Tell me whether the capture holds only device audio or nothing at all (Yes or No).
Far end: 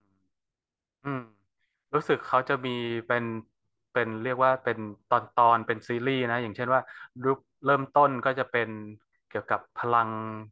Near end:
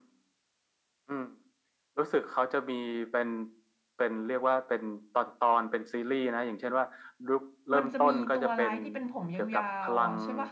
No